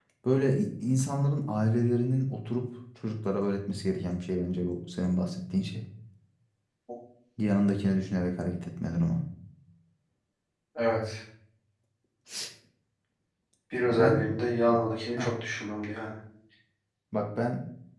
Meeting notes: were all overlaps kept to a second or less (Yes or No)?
Yes